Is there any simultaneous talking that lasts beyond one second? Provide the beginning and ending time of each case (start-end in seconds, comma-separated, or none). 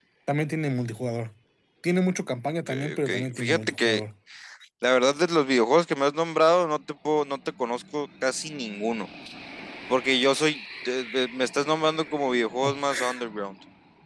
2.7-4.0